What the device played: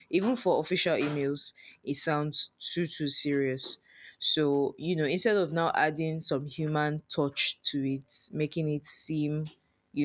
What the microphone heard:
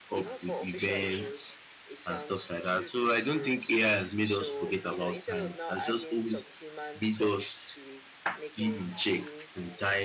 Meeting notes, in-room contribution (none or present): present